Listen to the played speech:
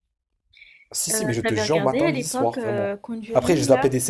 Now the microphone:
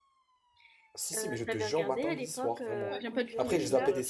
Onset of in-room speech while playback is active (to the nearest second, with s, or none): 3 s